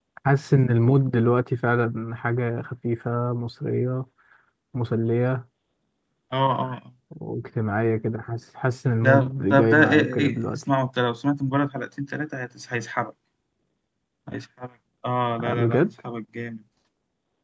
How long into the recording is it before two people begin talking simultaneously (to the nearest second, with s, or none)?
9 s